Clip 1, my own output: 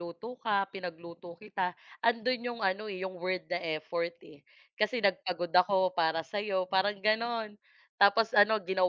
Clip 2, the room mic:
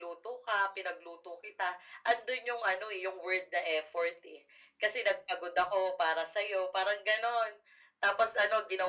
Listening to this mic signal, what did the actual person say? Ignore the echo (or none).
none